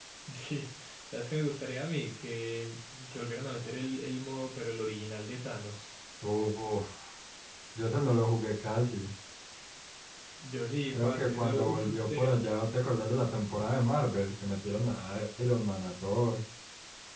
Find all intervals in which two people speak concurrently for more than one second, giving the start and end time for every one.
10.9-12.4

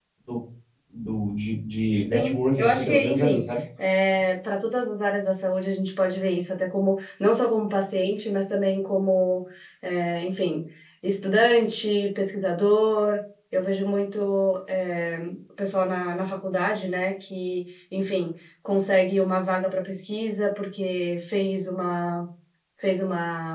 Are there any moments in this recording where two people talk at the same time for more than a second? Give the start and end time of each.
2.1-3.4

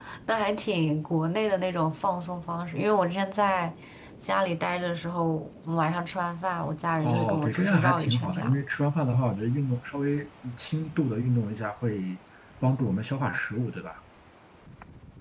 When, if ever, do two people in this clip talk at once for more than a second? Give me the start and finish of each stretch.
7.0-8.6

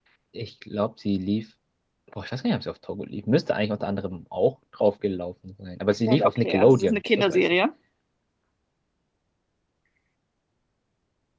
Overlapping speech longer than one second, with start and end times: 6.1-7.4

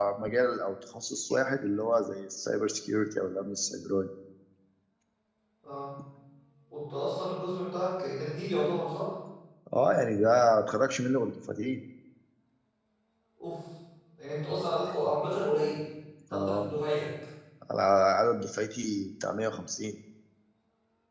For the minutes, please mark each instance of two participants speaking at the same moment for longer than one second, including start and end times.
none

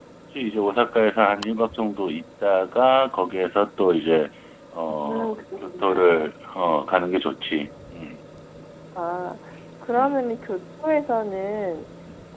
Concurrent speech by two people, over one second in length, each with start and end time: 4.9-6.3

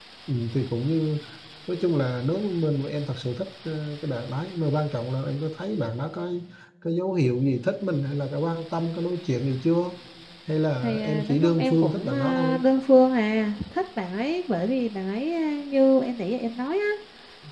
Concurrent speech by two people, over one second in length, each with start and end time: 10.8-12.6

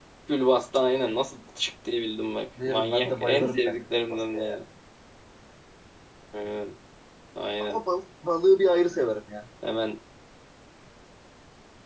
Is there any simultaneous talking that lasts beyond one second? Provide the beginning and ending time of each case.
2.6-4.6

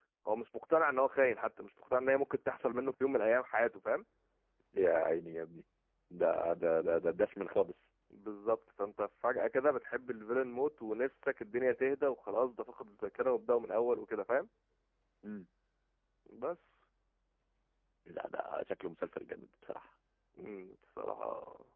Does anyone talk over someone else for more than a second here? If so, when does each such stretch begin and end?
none

